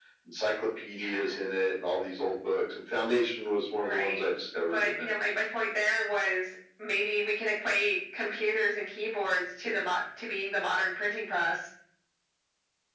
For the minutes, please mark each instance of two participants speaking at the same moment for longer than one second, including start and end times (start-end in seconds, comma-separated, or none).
none